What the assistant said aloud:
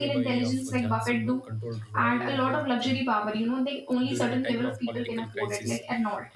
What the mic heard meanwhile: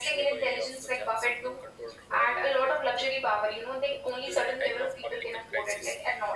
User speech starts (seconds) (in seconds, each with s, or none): none